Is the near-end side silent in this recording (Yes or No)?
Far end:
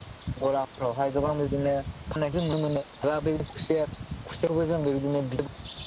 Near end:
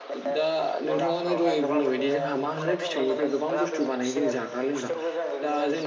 No